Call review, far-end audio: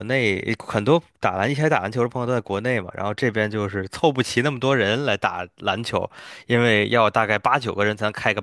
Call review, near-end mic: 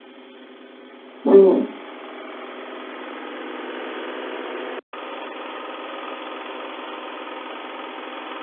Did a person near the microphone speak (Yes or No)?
Yes